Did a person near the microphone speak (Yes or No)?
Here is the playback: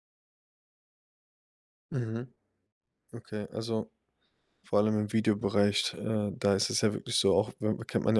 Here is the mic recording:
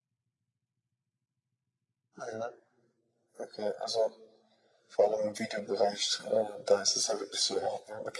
No